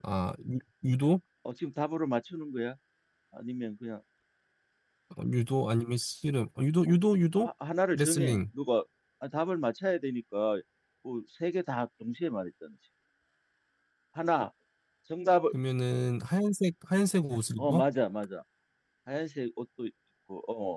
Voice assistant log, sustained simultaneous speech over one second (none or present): none